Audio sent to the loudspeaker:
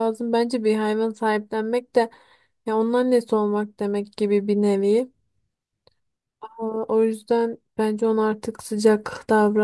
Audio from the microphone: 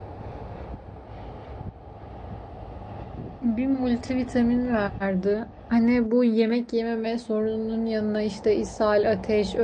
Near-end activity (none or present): present